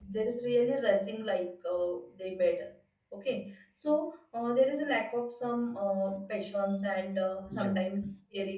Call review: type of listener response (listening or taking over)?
listening